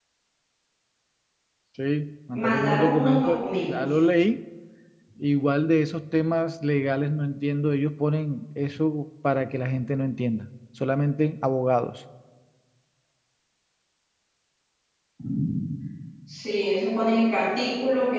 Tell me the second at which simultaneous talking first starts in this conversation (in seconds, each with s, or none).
2.4 s